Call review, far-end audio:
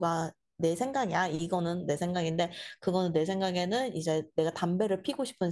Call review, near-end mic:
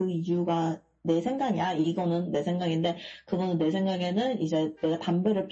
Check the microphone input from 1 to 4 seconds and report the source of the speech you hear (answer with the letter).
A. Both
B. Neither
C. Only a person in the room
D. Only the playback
D